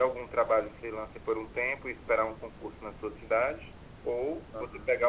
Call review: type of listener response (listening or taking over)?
listening